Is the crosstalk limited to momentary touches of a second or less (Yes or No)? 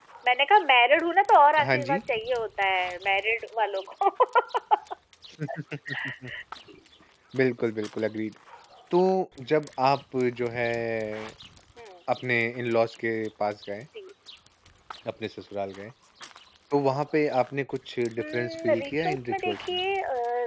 No